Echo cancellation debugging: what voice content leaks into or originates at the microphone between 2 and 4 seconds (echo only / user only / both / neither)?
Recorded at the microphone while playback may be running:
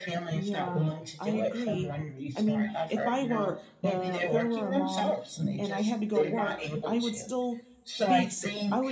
both